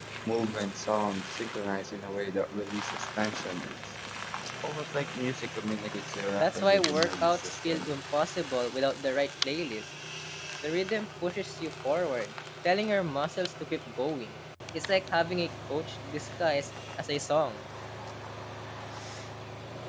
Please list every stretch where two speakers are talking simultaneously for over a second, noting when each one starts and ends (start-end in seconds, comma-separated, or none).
6.4-7.9